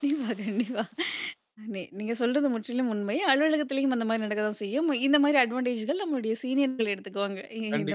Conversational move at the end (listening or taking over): taking over